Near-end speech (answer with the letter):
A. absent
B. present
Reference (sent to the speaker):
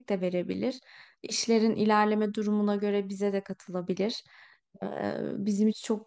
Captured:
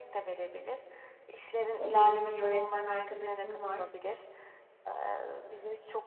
B